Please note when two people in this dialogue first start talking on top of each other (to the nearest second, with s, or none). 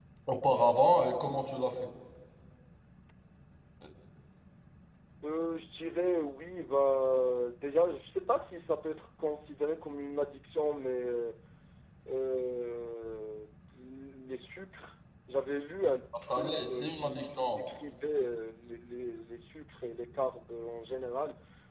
16 s